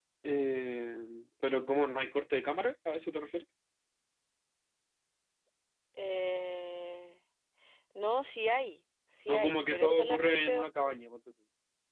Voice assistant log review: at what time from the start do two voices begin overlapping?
9.3 s

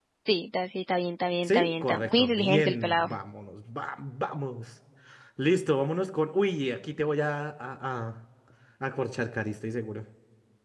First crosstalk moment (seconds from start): 1.4 s

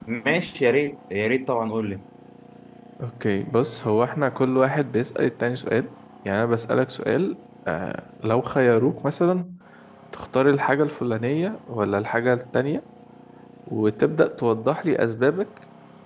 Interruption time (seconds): none

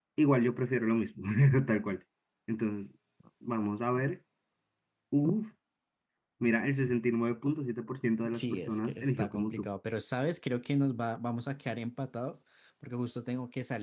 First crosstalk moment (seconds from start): 8.2 s

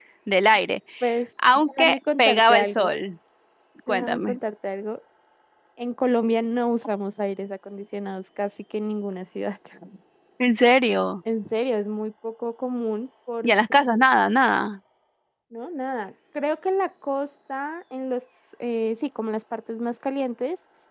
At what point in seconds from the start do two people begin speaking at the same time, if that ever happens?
1.6 s

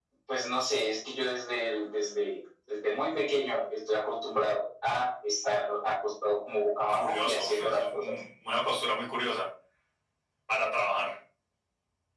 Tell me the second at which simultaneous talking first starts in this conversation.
6.9 s

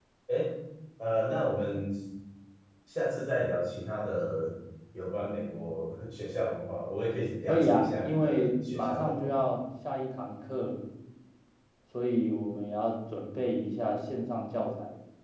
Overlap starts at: 7.5 s

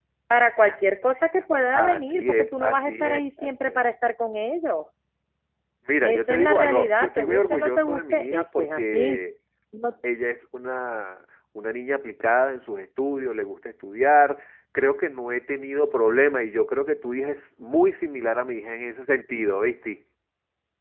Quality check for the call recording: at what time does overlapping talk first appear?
1.7 s

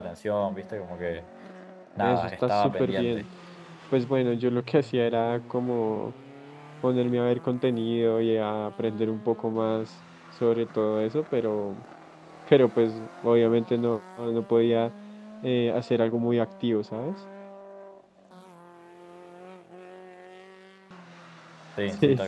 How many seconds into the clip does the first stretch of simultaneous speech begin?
2.0 s

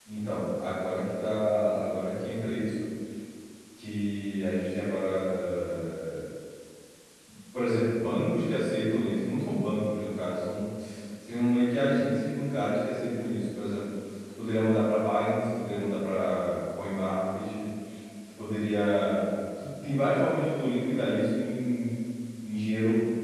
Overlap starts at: none

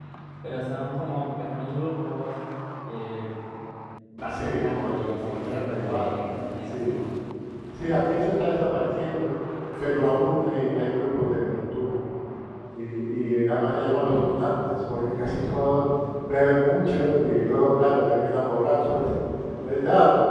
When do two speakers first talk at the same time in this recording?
4.3 s

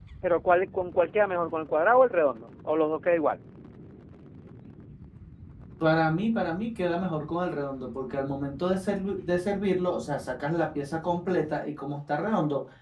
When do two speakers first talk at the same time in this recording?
none

